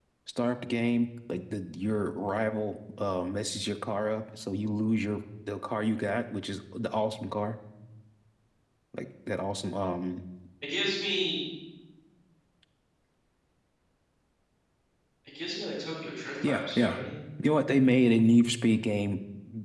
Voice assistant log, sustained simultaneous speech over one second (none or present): none